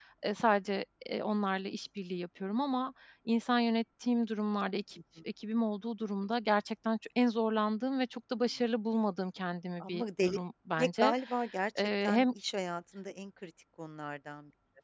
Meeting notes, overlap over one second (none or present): none